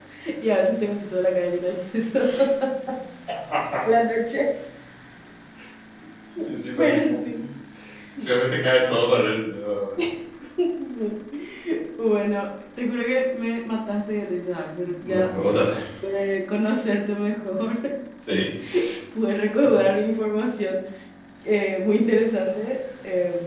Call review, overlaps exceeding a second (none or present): none